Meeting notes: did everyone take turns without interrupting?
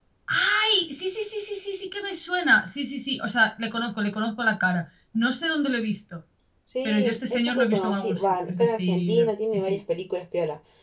No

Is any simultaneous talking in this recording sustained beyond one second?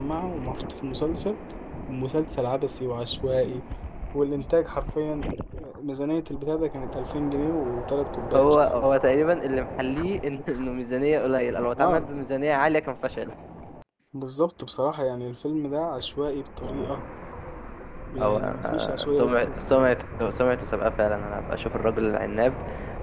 Yes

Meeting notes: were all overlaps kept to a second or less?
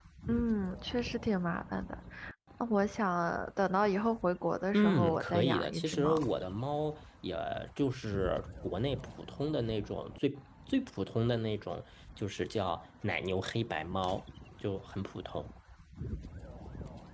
No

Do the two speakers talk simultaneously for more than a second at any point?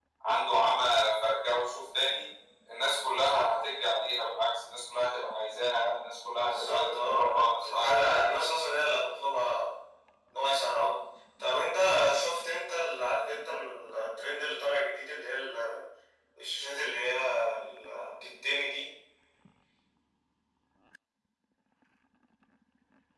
Yes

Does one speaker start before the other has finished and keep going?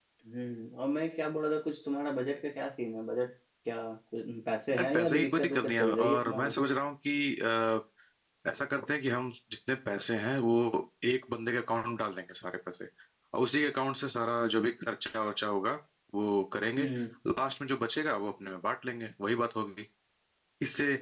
Yes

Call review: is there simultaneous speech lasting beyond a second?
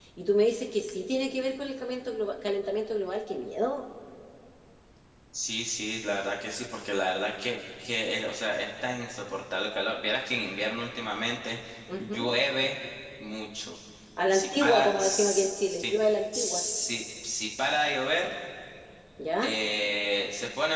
Yes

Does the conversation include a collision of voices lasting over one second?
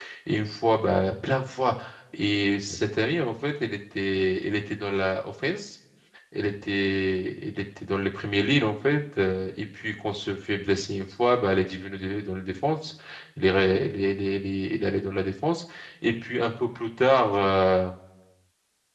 No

